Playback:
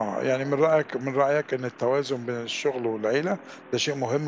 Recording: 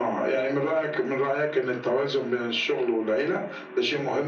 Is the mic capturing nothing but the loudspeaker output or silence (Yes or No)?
Yes